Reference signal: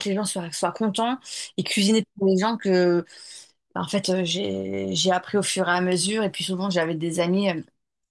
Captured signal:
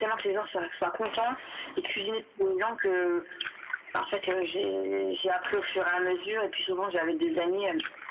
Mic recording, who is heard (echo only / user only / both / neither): echo only